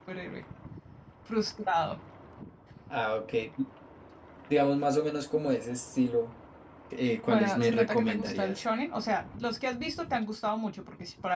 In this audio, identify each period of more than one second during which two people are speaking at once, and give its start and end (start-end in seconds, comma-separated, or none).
7.3-8.6